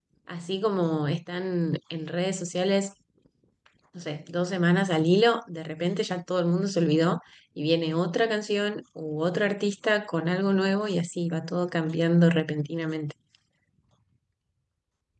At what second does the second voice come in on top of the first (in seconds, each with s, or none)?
none